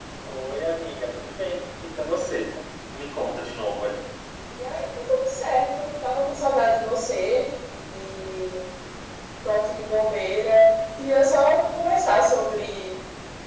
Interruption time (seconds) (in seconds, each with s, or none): none